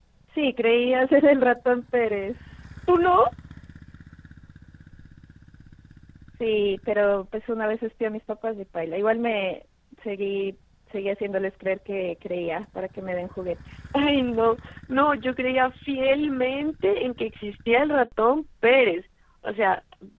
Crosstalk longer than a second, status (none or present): none